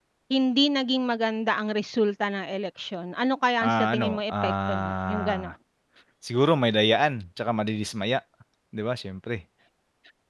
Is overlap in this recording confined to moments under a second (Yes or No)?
No